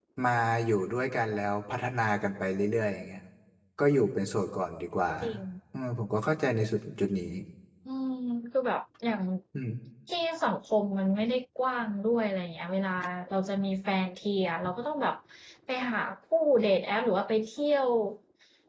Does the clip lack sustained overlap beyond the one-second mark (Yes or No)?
Yes